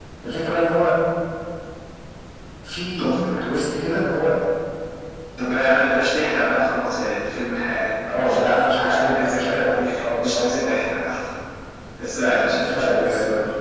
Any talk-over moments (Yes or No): Yes